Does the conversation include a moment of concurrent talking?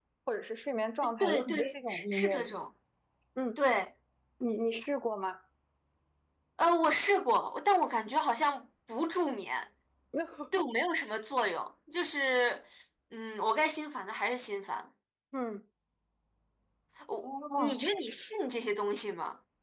Yes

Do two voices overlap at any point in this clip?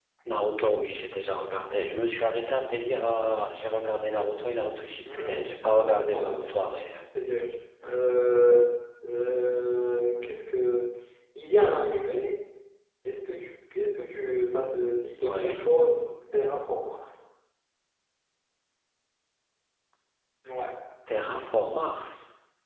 Yes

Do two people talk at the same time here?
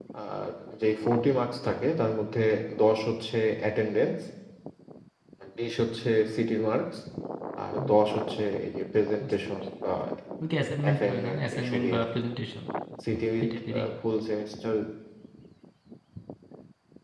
Yes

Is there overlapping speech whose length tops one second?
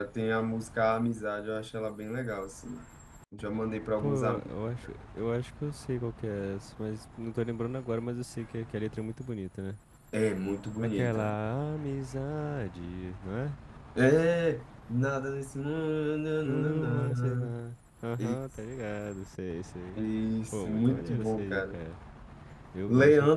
Yes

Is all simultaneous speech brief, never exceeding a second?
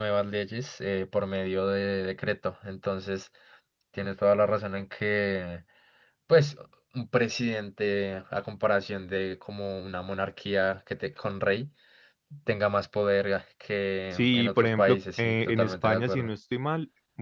No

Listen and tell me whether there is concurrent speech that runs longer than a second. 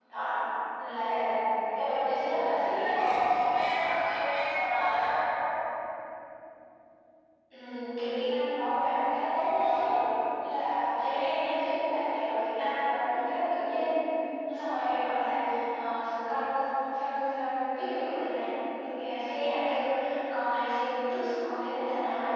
No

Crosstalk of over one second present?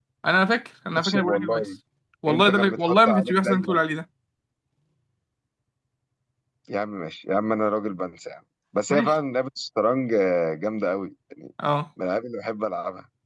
Yes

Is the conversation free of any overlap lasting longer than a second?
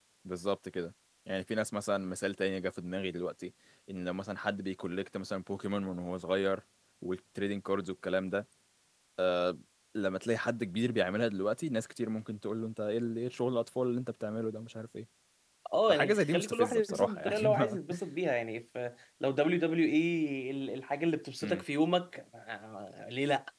No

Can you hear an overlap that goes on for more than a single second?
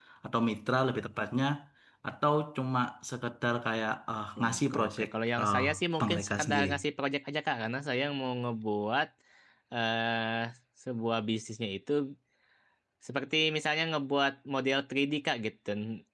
Yes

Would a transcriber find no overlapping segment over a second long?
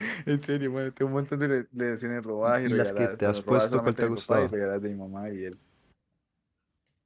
No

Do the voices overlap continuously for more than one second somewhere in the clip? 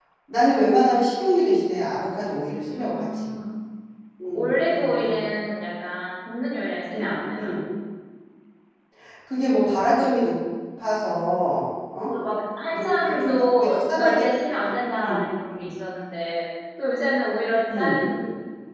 Yes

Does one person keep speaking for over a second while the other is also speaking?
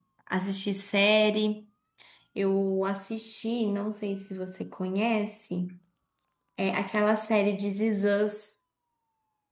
No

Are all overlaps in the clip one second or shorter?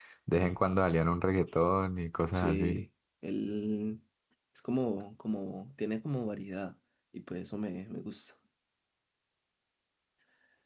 Yes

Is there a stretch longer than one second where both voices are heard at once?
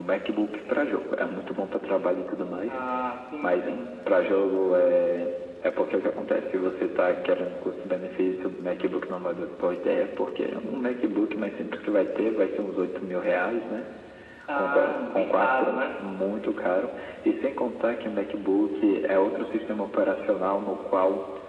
Yes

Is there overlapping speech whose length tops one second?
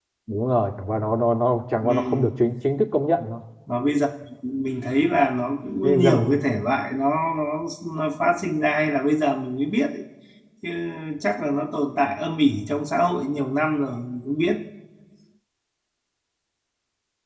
No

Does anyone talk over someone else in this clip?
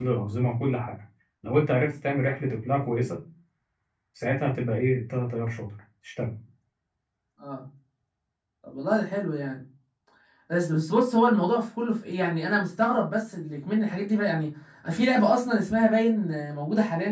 No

